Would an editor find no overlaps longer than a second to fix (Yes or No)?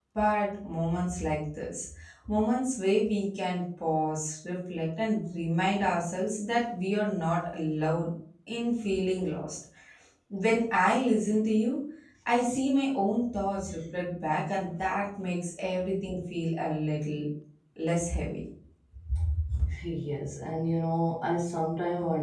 Yes